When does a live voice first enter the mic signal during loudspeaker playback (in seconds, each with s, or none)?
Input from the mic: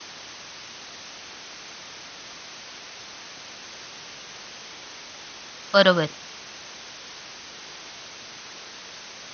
5.7 s